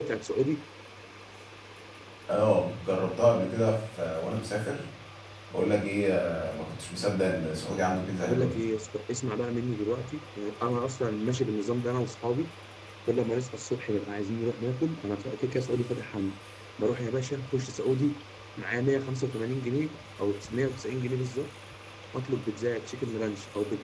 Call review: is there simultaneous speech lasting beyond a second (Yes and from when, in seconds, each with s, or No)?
No